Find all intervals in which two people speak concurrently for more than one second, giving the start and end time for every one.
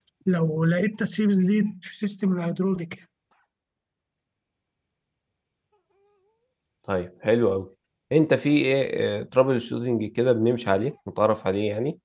none

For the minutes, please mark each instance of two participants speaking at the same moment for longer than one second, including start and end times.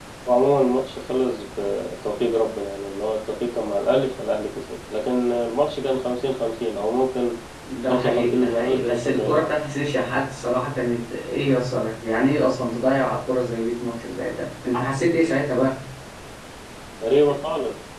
7.9-9.5

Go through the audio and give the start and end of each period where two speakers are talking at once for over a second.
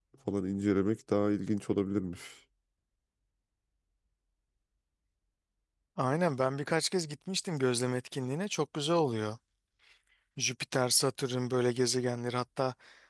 none

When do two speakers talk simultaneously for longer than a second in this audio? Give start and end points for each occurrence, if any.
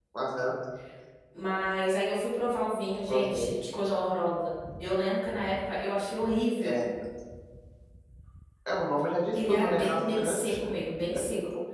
9.3-10.6

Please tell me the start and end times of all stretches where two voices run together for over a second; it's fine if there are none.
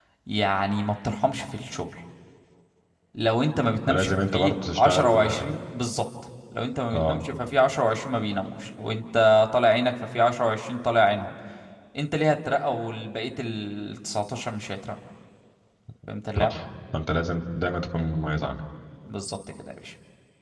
3.9-5.3

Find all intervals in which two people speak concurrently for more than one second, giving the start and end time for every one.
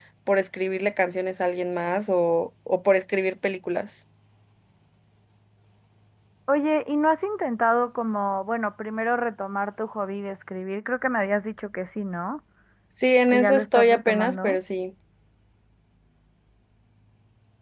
13.3-14.6

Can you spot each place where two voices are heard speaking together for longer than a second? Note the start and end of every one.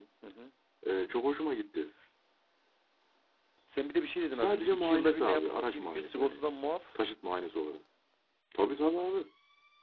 4.4-6.4

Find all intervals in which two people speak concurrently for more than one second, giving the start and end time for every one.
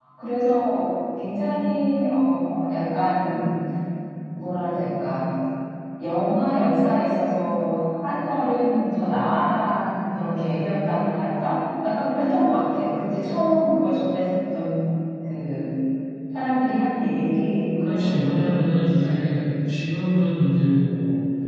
17.8-19.2

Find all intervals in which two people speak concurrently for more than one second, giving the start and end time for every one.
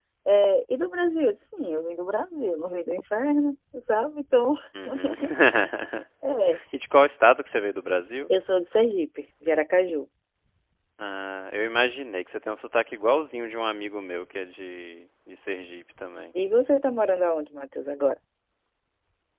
none

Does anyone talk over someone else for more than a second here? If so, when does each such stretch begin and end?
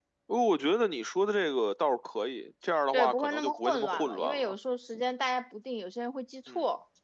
2.9-4.5

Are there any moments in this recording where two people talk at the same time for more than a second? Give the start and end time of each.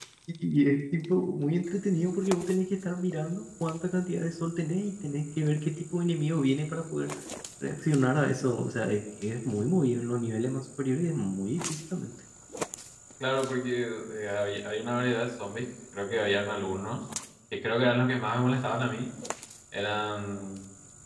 none

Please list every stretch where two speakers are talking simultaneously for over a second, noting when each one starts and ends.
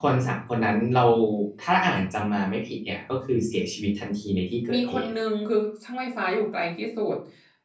none

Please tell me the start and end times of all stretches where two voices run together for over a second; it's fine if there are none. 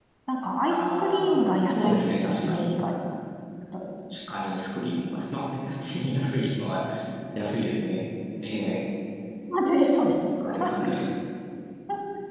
0.7-2.7

